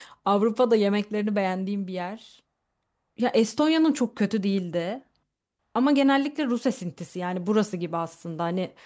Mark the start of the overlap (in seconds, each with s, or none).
none